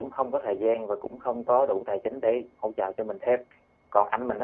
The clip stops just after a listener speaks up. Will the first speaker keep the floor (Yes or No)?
Yes